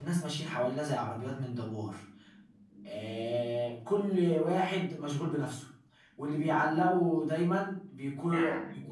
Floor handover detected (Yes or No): No